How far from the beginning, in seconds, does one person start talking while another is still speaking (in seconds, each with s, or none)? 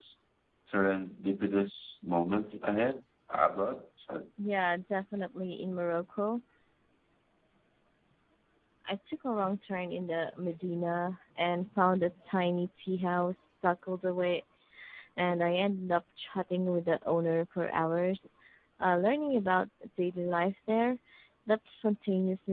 none